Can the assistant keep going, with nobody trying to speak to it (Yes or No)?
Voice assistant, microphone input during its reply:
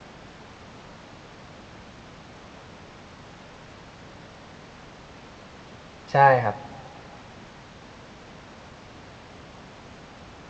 No